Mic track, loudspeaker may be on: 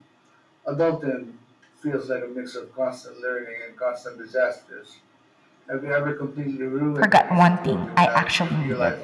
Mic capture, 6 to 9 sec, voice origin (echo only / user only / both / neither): both